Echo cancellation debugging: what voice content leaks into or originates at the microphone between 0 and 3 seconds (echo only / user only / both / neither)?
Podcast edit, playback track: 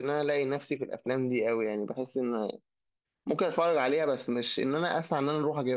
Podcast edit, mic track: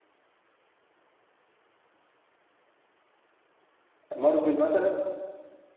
neither